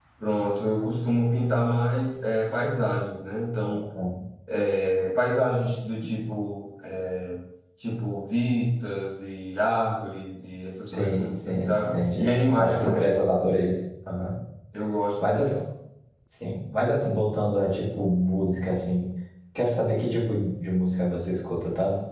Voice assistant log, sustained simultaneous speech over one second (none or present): present